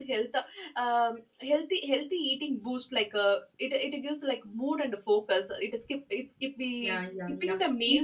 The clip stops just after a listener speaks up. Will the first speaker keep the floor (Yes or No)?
No